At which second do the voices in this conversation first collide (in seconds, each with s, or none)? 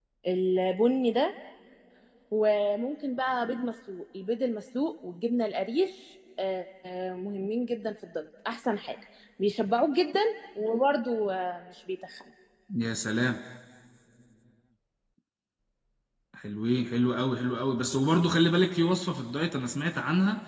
none